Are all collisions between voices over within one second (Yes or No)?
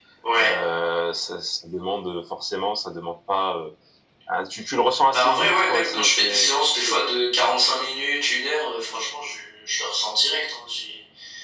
No